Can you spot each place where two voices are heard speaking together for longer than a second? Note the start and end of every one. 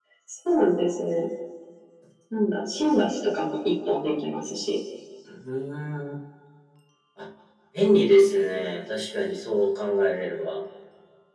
none

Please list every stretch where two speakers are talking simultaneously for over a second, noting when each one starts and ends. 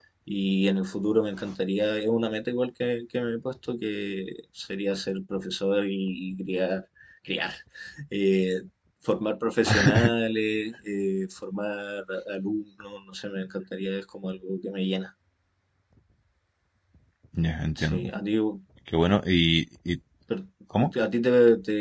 none

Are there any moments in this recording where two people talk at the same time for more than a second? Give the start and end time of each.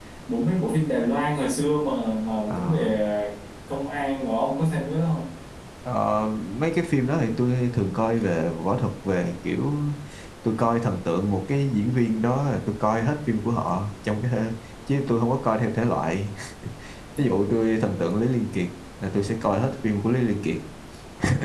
none

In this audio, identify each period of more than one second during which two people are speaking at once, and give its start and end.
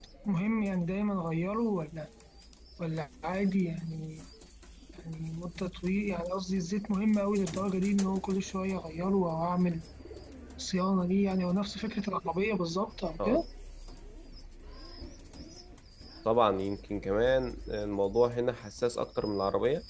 none

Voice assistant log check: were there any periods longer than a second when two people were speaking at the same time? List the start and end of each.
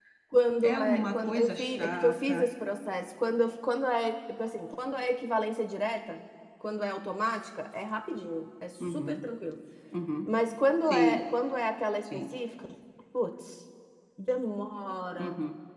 0.6-2.5

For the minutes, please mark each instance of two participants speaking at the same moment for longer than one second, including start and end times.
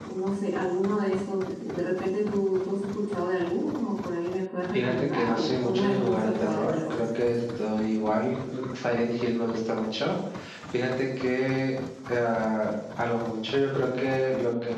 4.7-7.0

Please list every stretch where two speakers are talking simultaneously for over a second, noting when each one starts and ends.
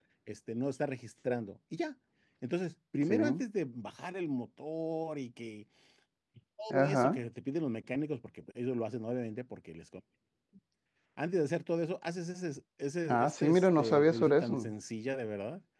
13.1-14.7

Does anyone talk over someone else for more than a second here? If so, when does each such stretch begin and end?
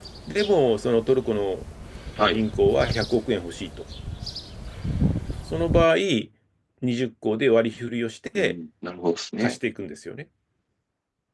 none

